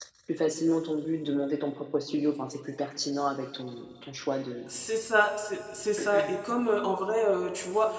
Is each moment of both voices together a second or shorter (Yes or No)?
Yes